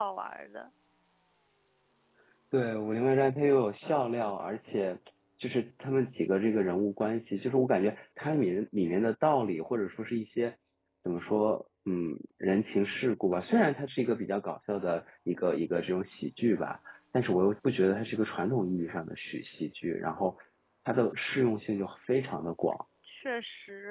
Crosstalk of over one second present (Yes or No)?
No